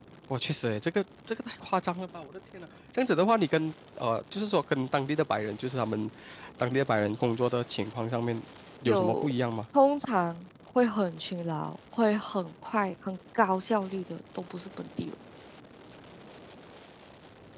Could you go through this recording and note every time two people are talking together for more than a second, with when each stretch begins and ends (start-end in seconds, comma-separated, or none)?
none